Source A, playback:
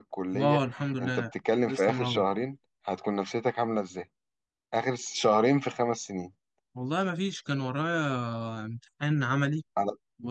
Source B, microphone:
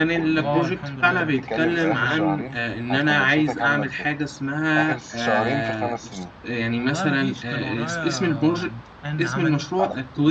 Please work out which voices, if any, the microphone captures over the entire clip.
both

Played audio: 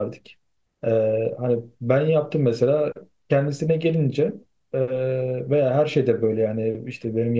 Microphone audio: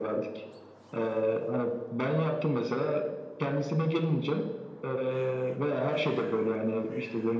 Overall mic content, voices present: echo only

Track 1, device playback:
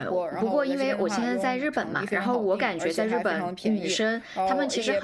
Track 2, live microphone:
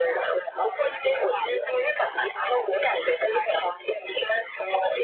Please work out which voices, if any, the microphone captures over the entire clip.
echo only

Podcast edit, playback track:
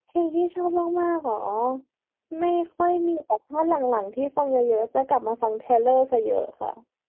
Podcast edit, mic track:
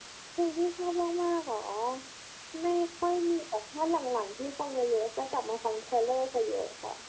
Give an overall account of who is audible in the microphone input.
echo only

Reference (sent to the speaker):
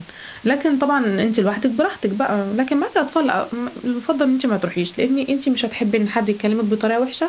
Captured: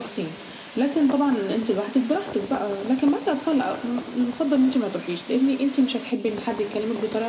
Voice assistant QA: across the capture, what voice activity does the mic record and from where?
echo only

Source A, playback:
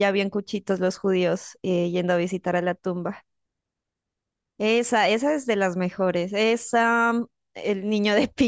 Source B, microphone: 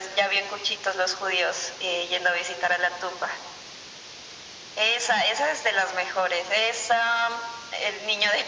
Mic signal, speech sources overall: echo only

